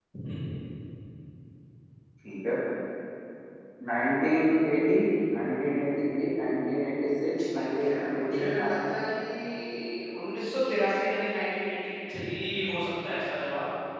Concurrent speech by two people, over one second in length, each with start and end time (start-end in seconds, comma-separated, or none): 7.6-8.8